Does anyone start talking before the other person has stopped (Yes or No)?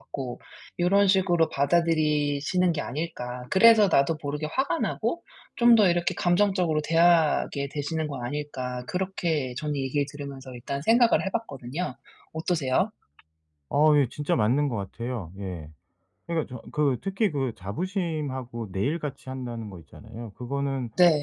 No